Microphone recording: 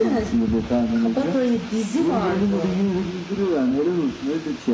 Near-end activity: none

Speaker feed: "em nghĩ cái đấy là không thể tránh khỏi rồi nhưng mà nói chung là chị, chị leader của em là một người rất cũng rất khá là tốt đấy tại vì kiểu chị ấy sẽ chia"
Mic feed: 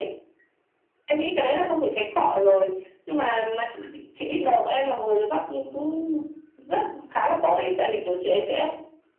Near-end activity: none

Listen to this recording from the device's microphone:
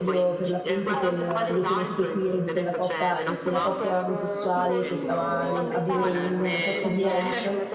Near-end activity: present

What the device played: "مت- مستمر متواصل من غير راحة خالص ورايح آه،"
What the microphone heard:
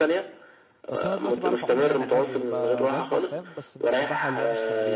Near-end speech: present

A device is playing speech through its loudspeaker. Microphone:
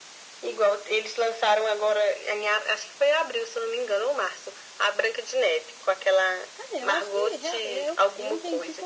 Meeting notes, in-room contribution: present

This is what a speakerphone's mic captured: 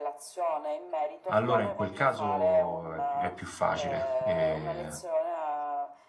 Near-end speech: present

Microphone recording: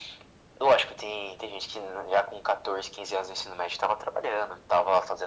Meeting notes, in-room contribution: none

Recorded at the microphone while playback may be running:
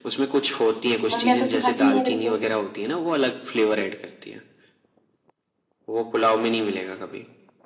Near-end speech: present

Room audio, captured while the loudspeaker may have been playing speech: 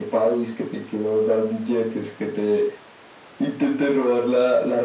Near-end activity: none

